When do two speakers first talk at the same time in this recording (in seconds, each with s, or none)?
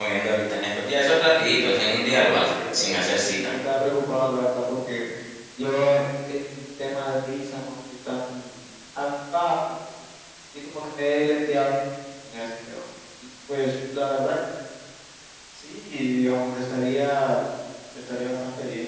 2.1 s